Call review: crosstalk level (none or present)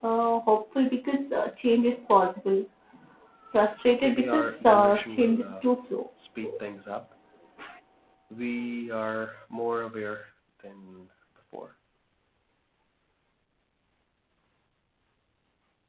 present